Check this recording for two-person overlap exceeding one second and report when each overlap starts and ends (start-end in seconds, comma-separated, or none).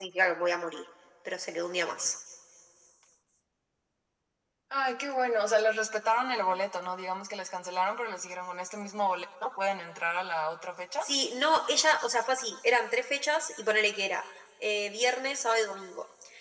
none